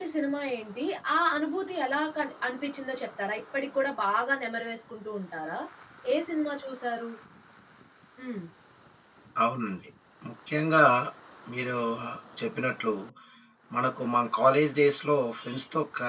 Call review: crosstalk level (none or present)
none